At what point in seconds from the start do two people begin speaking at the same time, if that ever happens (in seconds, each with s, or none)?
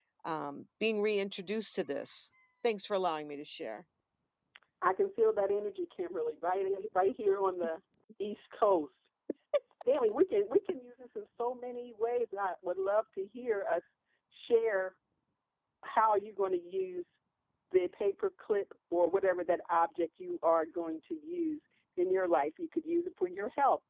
none